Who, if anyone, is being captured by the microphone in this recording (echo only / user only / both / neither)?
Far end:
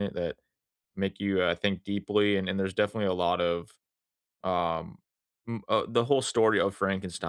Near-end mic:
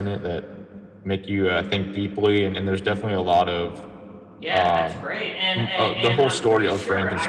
both